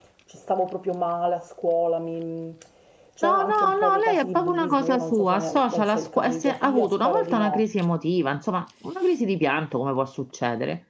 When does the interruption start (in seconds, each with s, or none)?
3.2 s